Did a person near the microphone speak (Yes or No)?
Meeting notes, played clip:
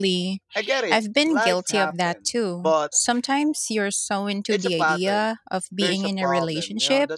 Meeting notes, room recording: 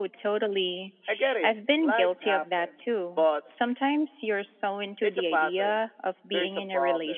No